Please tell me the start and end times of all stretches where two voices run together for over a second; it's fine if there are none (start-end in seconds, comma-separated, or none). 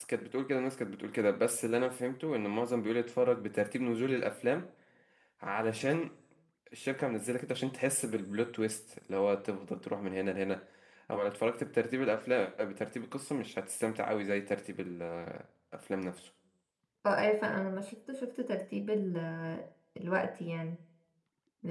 none